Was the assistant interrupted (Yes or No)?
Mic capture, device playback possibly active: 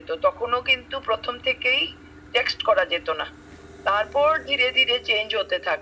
No